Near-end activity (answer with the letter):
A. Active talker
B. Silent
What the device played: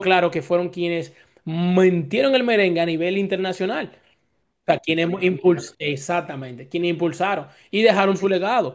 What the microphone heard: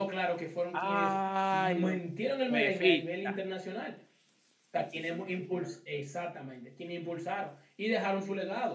A